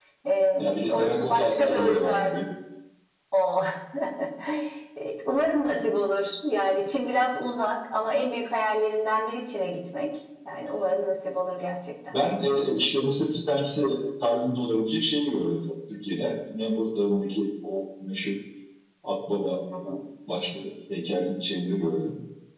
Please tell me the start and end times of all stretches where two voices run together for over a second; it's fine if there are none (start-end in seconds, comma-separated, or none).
0.6-2.4